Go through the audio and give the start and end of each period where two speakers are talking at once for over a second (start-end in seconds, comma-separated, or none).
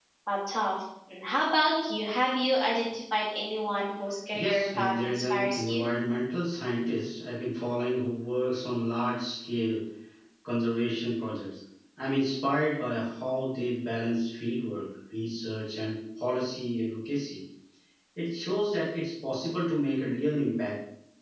4.3-5.8